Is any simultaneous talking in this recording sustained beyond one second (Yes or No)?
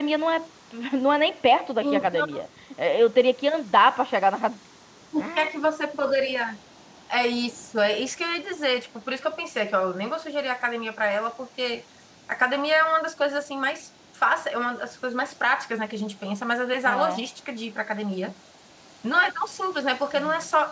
No